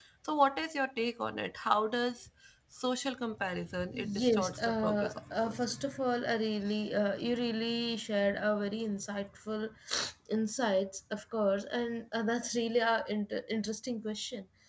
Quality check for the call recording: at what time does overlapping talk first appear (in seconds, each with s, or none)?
3.7 s